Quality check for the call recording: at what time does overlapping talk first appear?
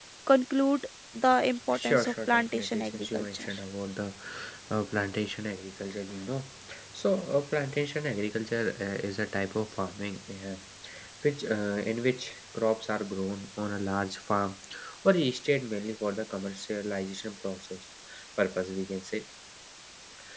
1.7 s

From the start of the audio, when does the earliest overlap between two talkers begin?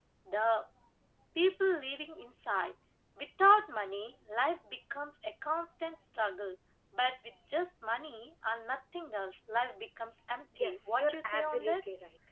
10.5 s

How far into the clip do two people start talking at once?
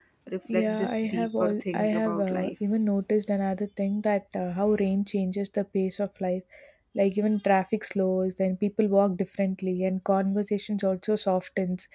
0.5 s

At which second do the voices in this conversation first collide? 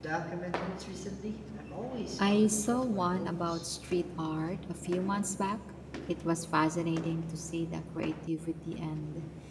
2.2 s

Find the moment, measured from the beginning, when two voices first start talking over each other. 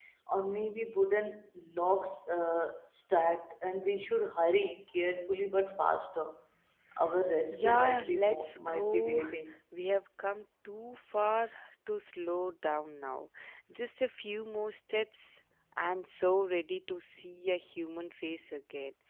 7.5 s

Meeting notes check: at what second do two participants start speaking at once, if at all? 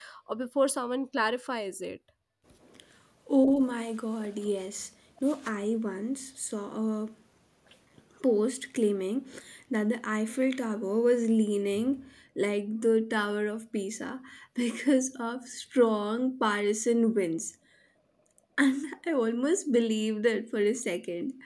none

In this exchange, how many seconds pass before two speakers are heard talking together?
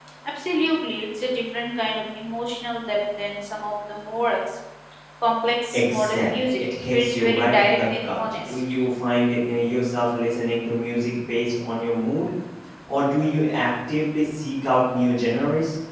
5.7 s

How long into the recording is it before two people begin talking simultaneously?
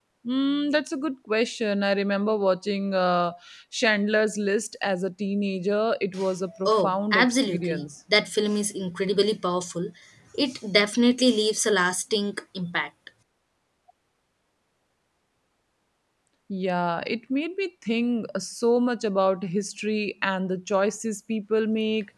6.7 s

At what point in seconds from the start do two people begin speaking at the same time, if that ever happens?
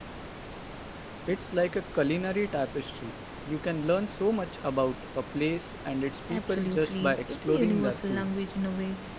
6.3 s

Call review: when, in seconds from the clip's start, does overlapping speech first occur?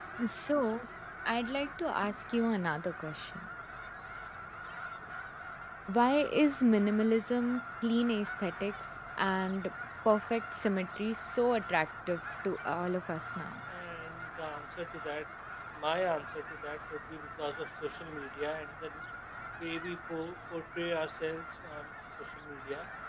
none

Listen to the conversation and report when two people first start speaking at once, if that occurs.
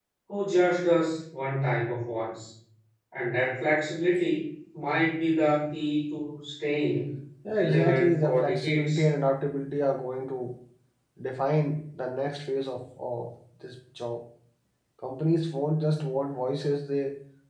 7.6 s

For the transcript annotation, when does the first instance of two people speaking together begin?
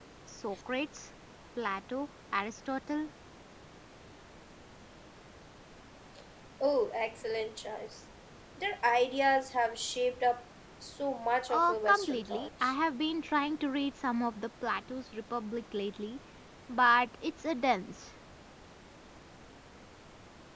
11.5 s

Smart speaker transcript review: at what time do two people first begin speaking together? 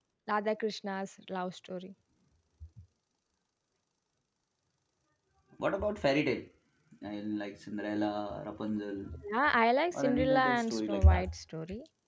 9.9 s

